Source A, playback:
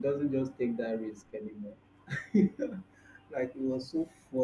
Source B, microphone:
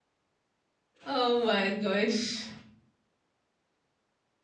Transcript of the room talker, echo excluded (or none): Oh my gosh.